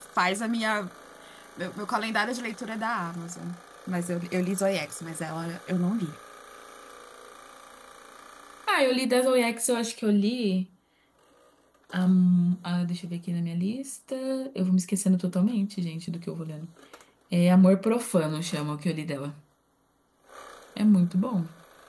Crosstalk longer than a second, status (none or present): none